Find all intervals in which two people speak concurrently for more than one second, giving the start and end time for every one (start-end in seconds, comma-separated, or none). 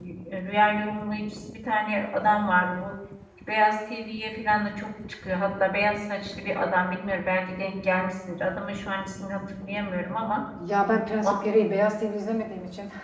none